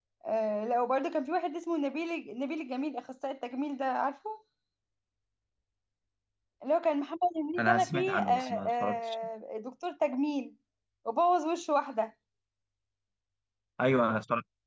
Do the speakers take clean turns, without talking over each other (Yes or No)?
No